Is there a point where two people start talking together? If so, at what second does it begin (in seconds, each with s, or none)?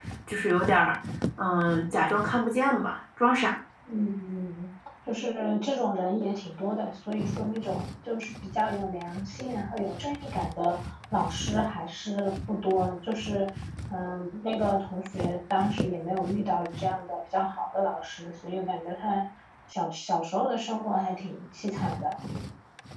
none